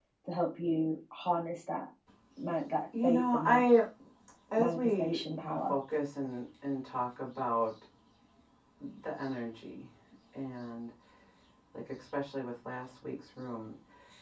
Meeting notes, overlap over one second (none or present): present